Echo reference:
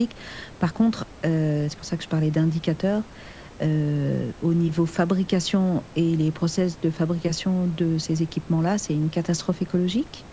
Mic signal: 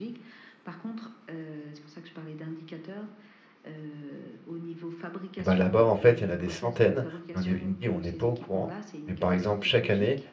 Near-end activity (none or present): present